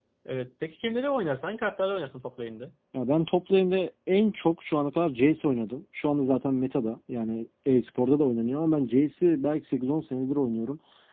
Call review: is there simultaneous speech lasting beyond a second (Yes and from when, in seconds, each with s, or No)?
No